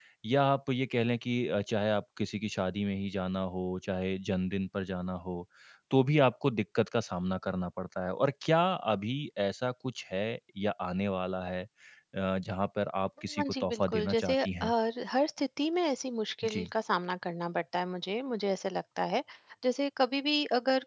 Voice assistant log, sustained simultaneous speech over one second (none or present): present